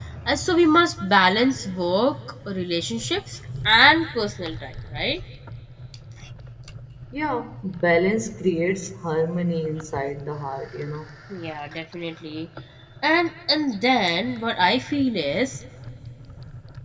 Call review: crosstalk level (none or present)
none